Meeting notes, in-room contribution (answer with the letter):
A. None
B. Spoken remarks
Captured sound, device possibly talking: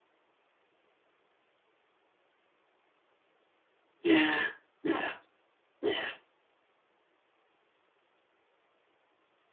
B